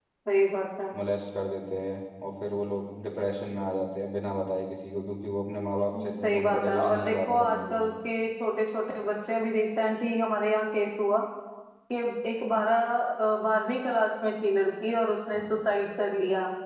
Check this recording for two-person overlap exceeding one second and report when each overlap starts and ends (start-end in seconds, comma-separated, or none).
6.0-7.9